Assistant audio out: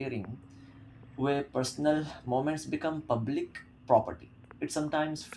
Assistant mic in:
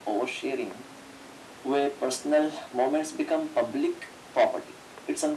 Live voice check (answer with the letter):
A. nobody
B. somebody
A